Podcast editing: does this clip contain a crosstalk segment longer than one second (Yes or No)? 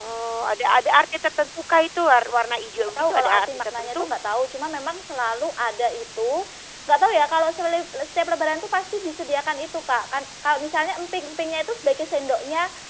Yes